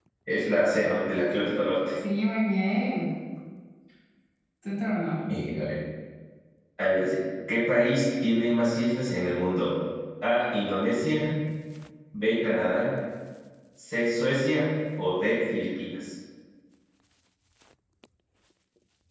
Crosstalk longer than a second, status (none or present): none